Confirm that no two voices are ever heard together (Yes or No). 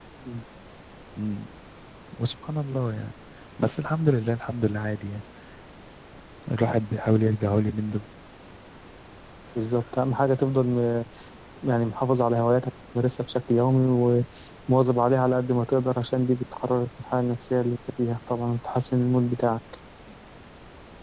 Yes